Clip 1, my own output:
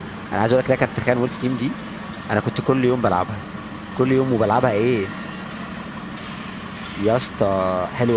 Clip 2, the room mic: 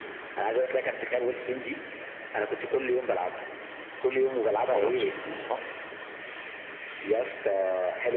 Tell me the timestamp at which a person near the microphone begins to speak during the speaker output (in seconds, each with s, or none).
4.5 s